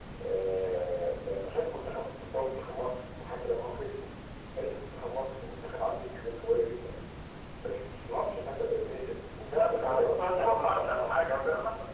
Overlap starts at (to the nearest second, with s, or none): 10 s